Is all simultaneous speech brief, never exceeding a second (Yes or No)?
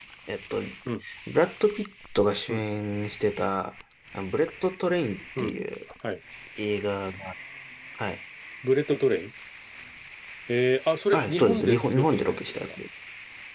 No